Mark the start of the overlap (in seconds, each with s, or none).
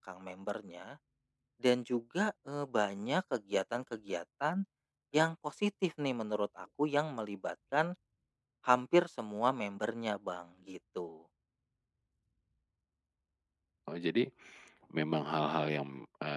none